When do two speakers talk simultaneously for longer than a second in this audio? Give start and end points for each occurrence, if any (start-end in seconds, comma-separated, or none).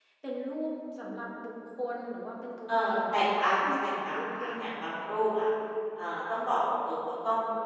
2.7-4.9